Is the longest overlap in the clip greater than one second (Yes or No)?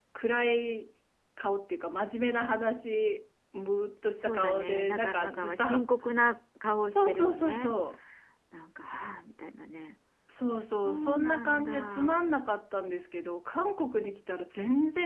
Yes